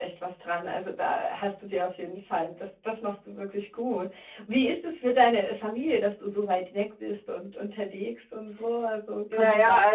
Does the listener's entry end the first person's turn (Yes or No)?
Yes